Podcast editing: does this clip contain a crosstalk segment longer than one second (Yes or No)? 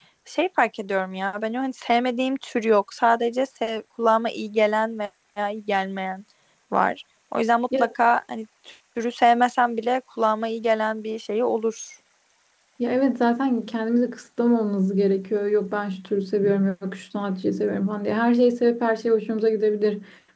No